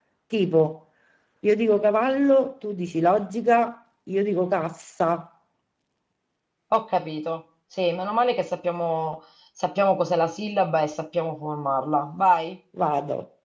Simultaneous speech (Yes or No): No